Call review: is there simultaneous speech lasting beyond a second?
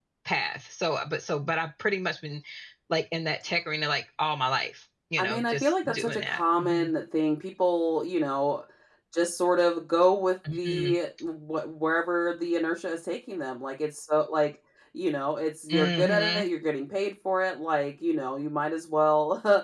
Yes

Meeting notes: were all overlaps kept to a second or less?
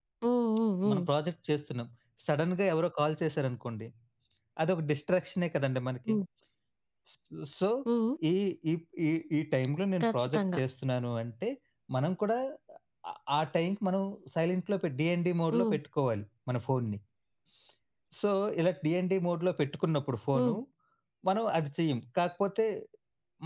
Yes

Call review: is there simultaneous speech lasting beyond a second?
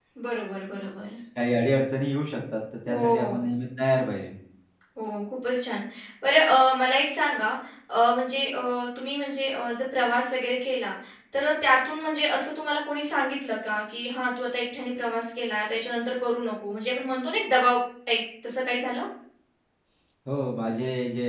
No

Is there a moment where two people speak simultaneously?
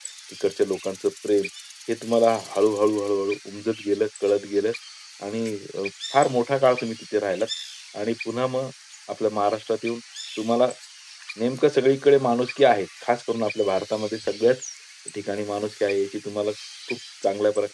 No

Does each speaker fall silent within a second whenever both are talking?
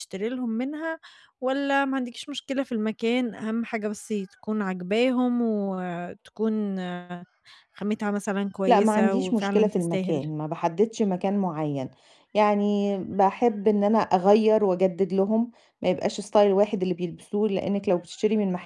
No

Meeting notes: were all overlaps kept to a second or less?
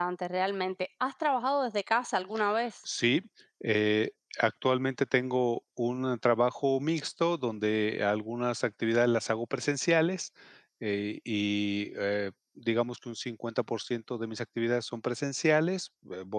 Yes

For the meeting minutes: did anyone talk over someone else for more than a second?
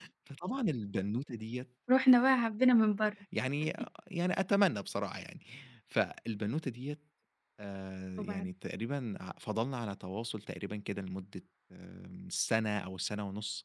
No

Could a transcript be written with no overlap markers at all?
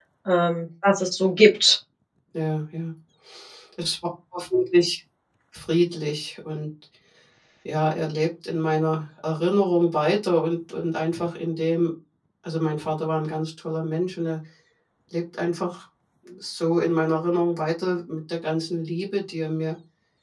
Yes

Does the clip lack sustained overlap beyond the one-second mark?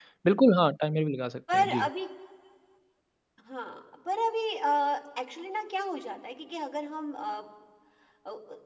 Yes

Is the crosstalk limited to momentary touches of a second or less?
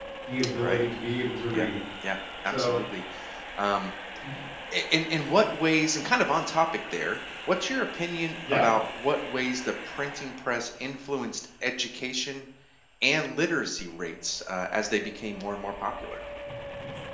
Yes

